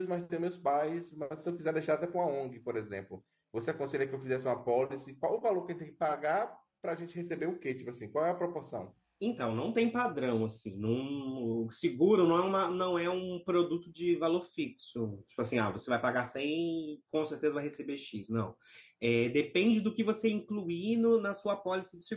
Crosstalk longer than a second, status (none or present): none